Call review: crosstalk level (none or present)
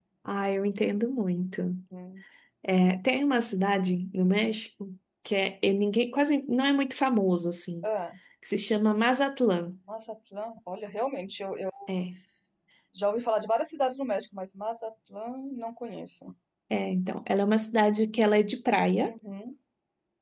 none